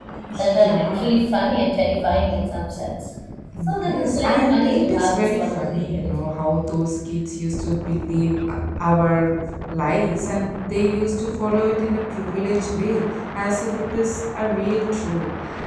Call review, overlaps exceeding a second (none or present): present